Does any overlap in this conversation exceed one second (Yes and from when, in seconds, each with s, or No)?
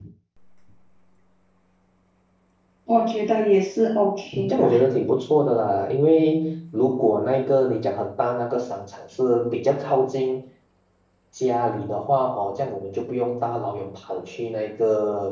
No